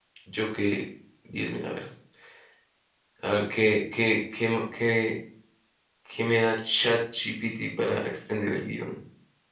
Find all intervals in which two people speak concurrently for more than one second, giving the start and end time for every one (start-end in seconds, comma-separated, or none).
none